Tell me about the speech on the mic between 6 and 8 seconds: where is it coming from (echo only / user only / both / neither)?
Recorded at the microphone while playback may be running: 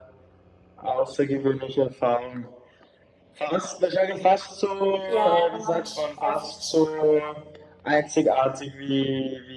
both